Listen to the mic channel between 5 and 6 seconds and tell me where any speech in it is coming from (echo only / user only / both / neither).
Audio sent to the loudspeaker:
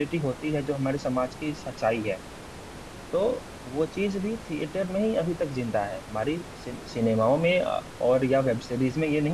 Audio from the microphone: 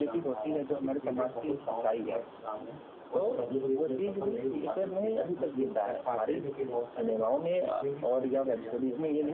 both